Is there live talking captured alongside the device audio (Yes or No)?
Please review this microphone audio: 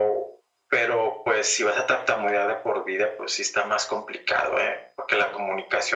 No